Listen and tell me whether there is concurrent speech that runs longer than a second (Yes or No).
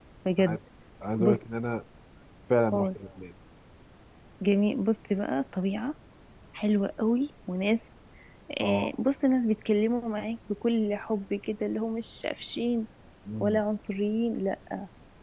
No